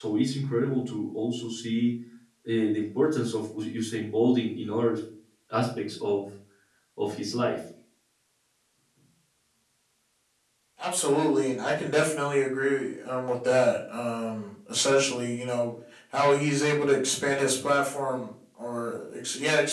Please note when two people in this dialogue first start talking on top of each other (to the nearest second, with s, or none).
none